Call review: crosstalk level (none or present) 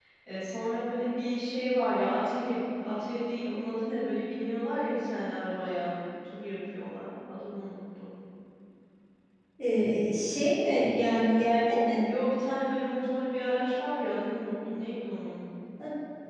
none